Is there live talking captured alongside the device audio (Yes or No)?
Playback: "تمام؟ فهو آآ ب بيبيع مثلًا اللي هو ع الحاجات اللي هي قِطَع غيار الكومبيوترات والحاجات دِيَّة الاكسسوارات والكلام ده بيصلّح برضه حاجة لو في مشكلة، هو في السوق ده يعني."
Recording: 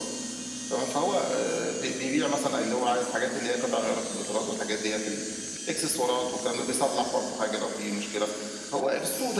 No